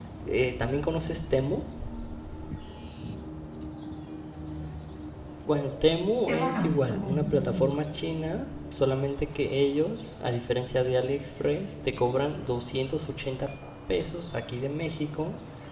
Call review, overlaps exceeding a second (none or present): present